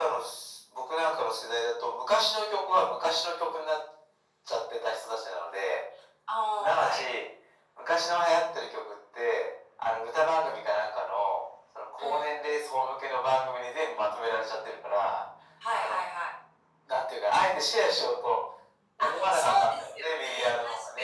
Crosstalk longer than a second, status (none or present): present